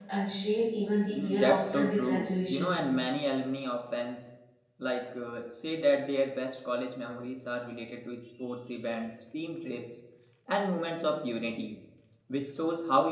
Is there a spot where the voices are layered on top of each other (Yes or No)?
Yes